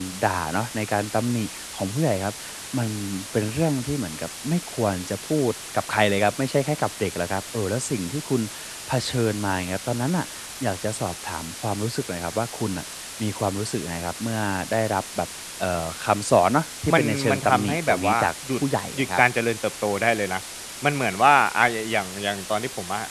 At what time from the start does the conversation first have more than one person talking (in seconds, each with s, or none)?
16.9 s